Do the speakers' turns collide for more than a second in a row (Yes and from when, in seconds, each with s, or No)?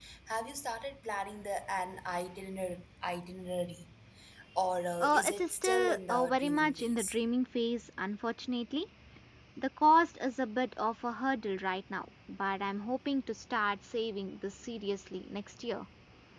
Yes, from 5.0 s